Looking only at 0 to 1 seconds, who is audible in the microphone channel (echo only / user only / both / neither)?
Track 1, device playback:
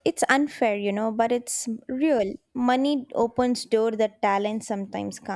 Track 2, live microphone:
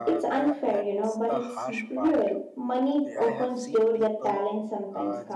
both